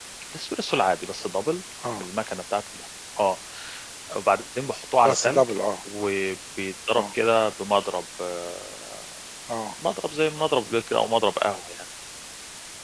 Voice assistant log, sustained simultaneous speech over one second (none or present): none